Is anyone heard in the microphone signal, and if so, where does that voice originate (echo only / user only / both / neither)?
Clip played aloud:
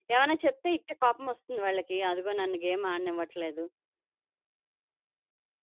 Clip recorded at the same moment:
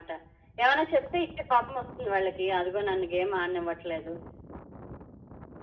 echo only